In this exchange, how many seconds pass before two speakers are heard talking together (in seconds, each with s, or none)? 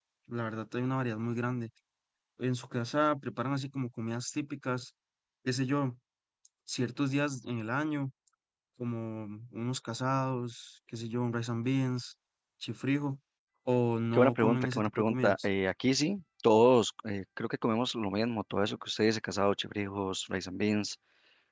14.1 s